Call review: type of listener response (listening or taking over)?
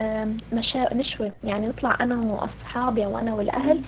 listening